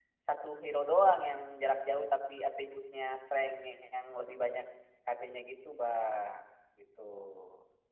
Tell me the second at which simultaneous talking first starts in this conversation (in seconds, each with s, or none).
none